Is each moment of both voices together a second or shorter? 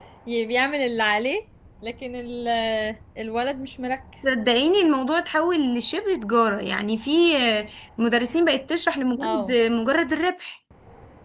Yes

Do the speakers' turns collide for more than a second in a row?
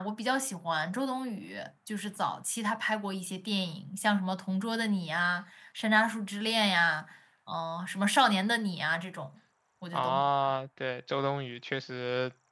No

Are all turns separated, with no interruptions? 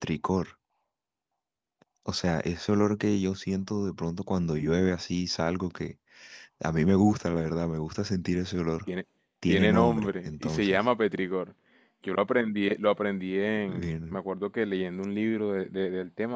No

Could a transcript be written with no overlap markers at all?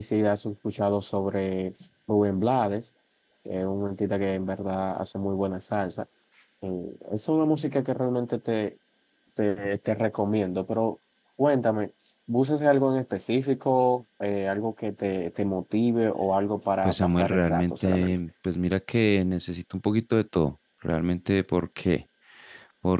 No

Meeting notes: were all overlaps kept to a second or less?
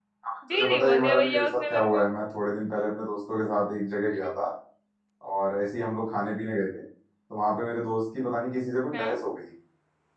No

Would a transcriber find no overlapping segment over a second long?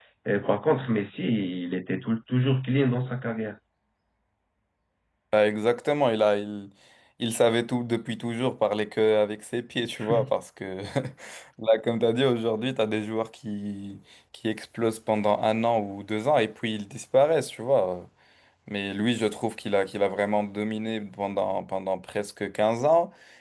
Yes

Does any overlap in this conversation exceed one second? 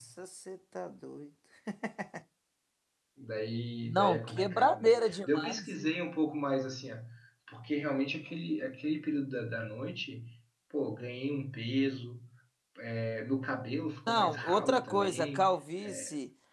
Yes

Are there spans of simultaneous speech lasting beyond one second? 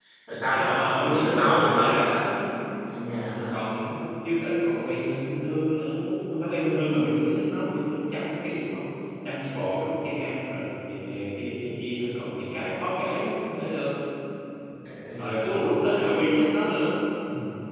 Yes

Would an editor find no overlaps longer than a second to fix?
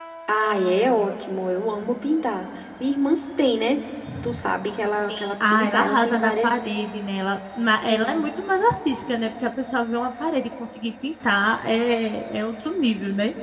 No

